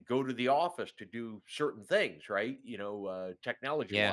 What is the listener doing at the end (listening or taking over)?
listening